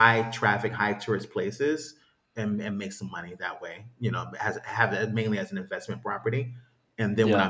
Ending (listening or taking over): listening